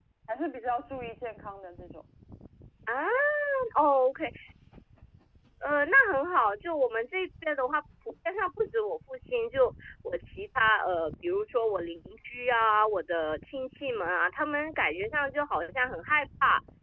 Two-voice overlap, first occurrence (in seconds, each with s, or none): none